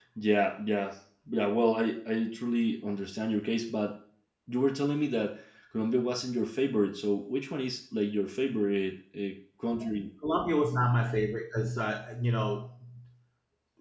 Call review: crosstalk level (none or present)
none